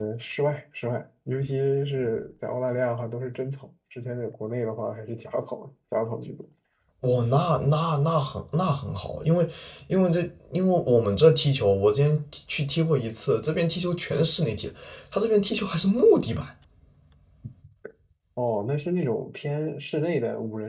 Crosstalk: none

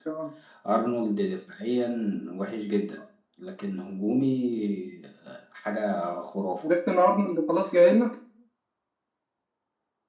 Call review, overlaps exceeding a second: none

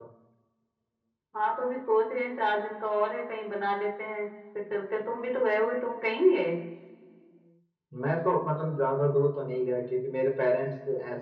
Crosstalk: none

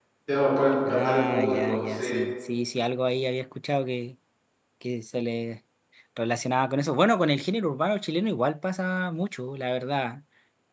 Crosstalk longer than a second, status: present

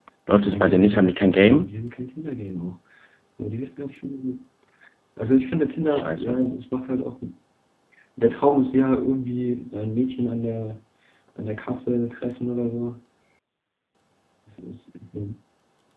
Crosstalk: present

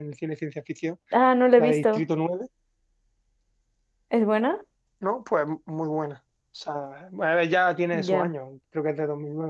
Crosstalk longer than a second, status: none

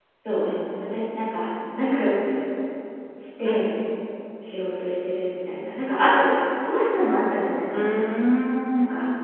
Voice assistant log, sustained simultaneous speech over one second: none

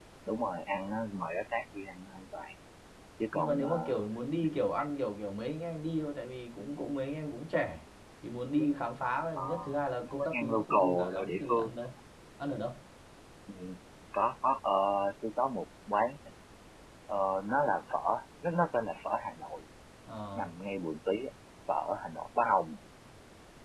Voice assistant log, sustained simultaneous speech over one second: present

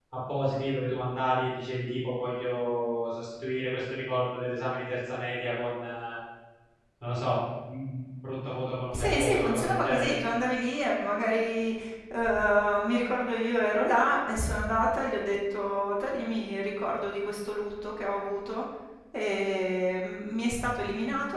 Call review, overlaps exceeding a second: present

